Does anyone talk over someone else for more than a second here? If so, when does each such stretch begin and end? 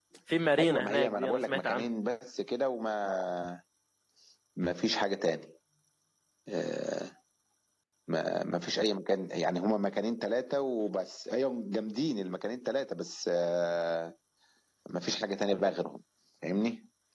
0.6-1.9

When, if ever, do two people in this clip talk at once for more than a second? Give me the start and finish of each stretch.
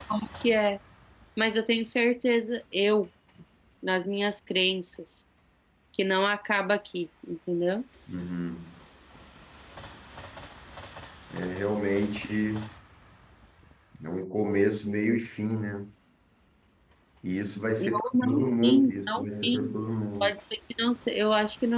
17.8-19.7

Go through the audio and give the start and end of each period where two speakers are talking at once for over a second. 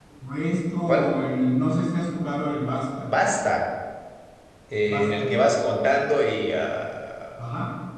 none

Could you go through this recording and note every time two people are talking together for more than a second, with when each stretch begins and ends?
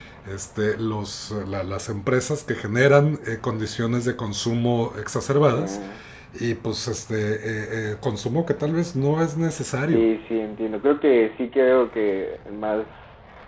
none

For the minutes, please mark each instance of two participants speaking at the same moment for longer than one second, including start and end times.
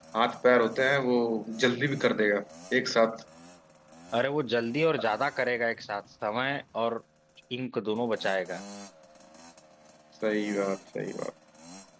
none

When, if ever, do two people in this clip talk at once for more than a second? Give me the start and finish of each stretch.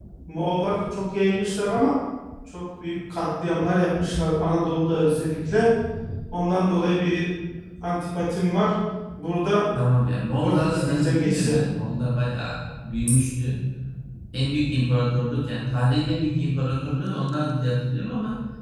10.4-11.6

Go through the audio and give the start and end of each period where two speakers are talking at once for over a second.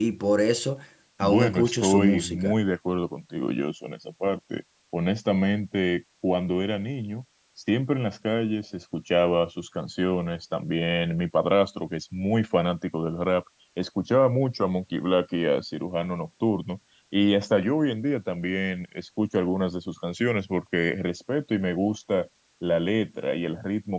1.2-2.6

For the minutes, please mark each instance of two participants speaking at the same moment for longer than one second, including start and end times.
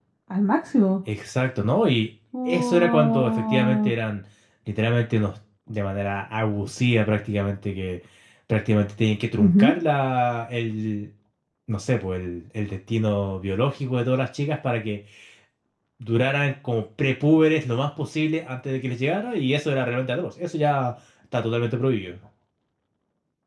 2.5-3.9

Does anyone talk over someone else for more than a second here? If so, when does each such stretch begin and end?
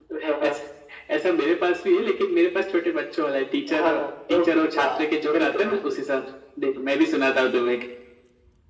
4.3-5.8

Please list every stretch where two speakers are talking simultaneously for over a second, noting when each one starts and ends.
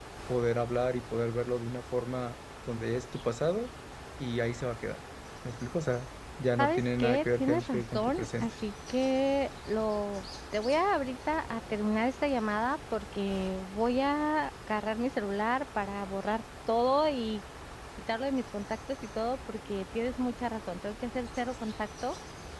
6.6-8.5

